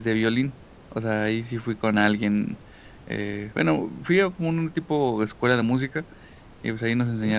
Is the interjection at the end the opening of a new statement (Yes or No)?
No